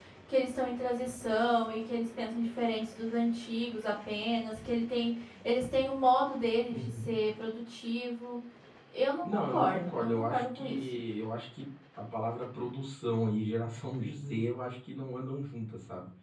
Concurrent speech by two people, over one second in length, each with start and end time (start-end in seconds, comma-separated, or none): 9.2-10.8